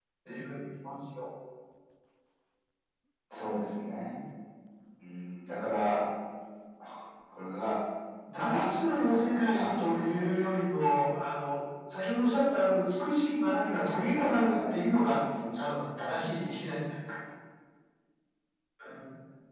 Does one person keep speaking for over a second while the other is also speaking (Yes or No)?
Yes